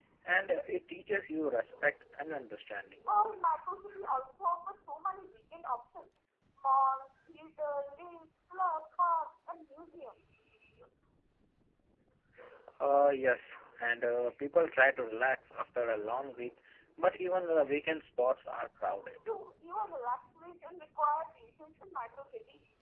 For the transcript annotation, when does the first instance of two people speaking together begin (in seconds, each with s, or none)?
none